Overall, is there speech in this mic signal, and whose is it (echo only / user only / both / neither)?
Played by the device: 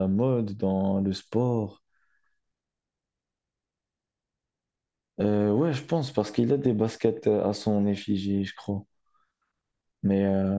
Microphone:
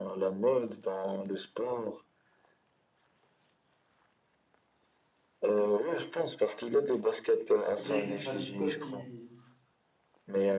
both